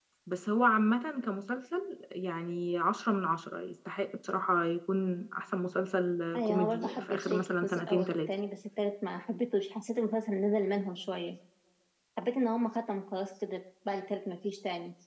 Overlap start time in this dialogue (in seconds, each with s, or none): 6.3 s